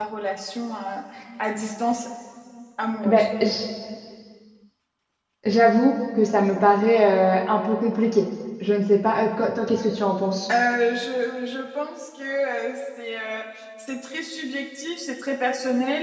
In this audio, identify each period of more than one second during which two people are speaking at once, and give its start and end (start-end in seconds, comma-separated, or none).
none